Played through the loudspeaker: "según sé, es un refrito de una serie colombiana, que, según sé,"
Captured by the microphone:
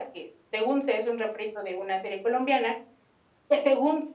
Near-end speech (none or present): none